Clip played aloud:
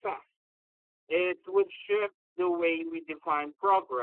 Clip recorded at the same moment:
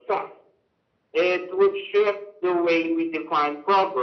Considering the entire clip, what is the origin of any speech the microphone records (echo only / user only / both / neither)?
echo only